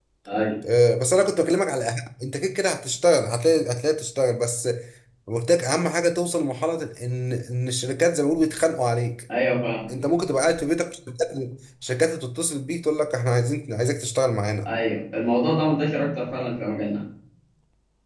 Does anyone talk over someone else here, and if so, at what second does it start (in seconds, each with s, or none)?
none